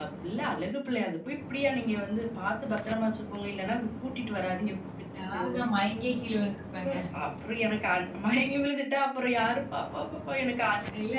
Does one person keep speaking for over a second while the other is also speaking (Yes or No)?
No